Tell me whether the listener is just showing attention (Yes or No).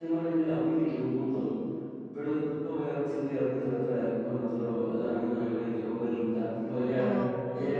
Yes